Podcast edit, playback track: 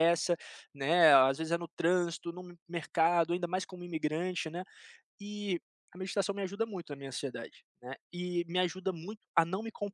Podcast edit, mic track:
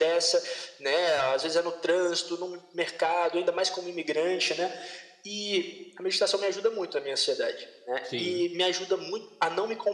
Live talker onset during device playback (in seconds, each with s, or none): 8.0 s